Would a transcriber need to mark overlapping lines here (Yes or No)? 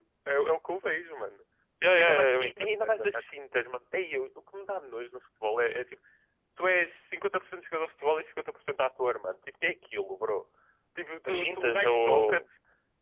Yes